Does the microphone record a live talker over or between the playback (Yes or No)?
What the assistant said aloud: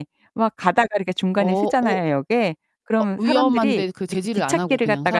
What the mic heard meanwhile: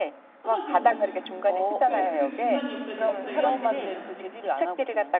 Yes